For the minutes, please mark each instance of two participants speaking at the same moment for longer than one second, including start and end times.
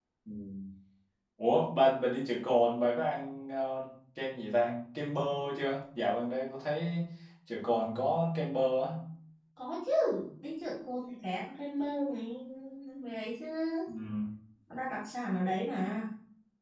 none

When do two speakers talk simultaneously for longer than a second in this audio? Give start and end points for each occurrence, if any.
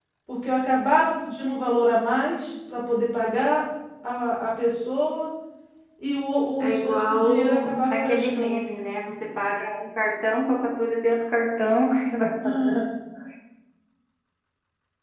6.6-8.7

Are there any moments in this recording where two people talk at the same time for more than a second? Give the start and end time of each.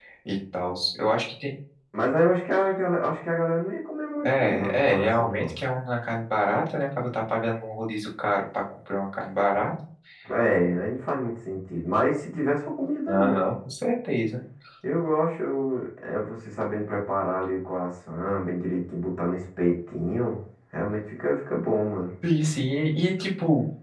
4.2-5.5

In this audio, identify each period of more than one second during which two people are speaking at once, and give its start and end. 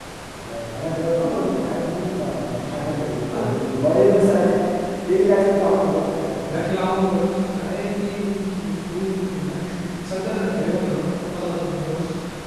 none

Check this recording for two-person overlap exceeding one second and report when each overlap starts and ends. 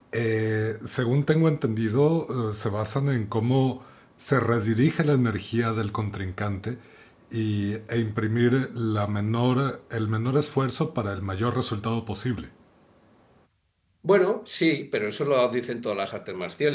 none

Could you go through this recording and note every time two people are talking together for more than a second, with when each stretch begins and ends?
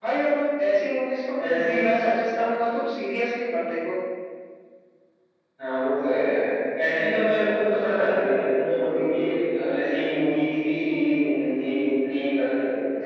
none

